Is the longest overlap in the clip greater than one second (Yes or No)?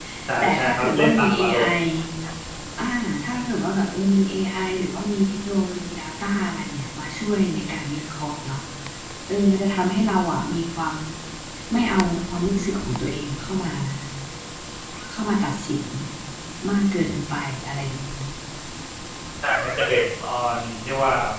Yes